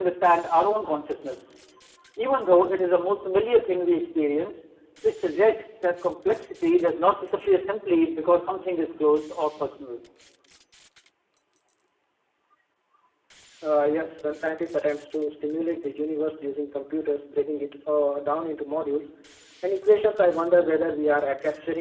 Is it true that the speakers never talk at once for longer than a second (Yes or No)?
Yes